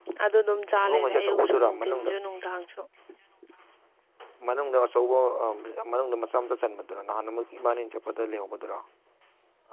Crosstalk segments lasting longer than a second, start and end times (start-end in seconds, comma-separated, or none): 0.8-2.1